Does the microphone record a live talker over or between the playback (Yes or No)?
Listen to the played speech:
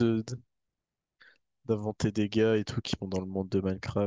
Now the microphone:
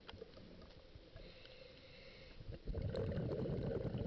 No